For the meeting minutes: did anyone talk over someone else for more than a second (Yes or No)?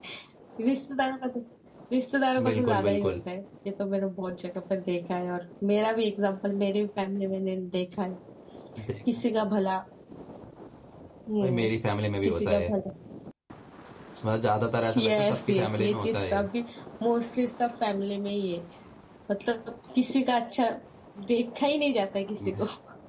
Yes